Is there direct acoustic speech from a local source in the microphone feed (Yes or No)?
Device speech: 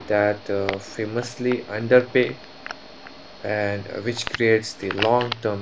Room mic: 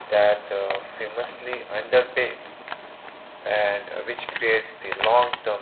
No